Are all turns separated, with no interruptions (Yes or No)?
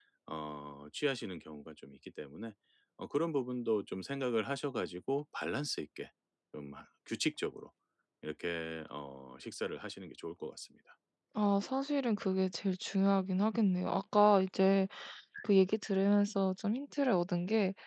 Yes